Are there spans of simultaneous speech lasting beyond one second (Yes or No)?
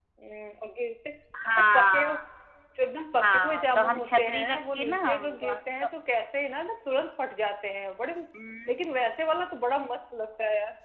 Yes